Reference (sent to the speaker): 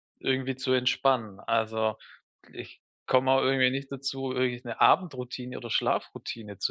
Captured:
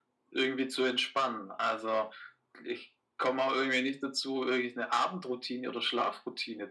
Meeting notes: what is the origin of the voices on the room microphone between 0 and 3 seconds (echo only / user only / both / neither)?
echo only